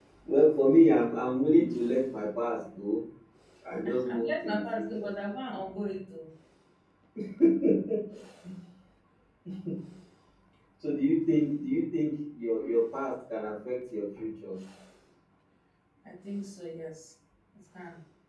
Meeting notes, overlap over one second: present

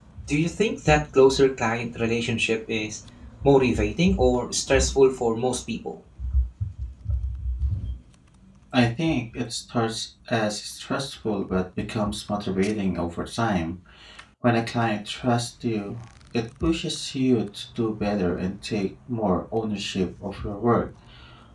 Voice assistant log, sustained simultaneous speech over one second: none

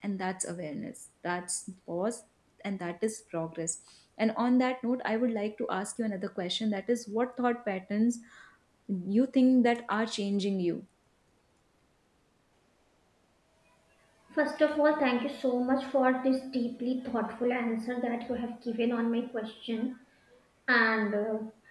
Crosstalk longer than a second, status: none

